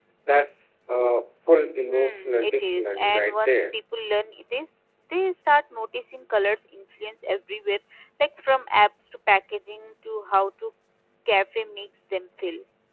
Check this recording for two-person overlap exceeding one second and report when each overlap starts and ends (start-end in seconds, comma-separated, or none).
1.9-3.7